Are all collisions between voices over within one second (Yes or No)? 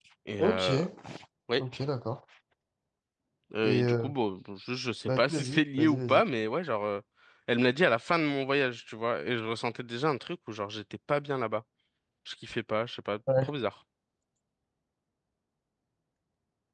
Yes